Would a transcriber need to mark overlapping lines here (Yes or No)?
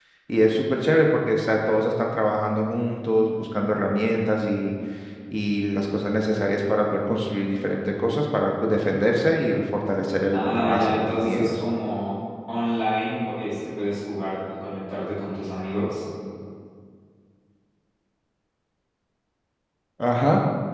Yes